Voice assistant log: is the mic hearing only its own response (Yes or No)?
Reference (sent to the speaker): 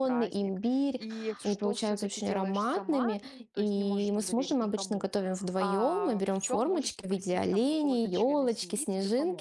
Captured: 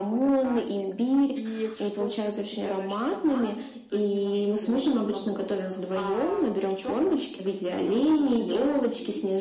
Yes